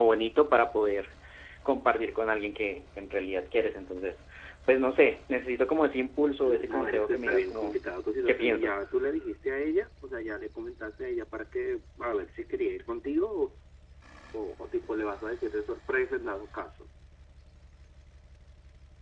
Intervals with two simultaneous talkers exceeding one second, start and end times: 6.4-7.8

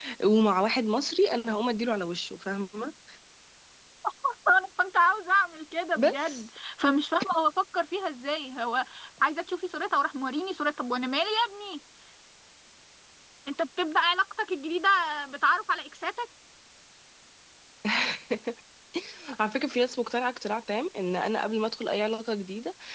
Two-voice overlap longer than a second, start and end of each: none

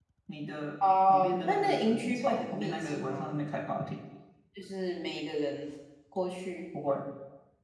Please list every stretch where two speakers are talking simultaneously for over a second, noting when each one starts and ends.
1.1-3.4

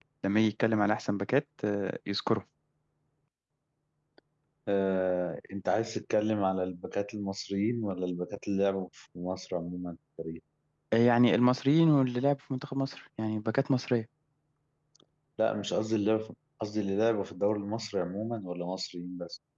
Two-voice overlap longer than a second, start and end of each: none

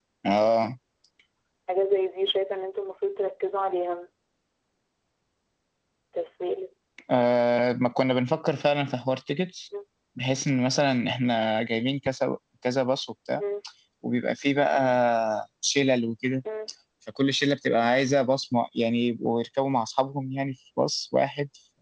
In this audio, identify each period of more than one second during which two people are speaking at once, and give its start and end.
none

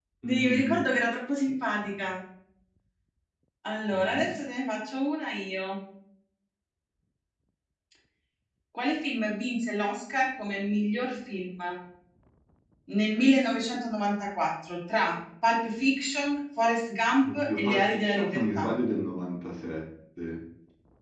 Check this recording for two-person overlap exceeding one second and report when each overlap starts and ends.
17.2-18.7

